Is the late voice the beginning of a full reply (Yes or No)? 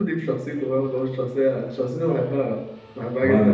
No